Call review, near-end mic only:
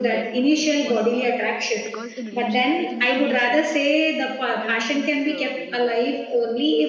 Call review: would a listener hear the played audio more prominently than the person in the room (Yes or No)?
Yes